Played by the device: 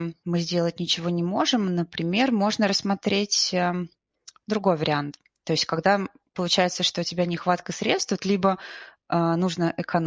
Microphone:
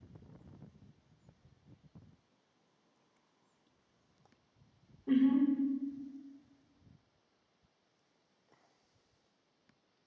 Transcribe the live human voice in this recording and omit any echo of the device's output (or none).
Мгм.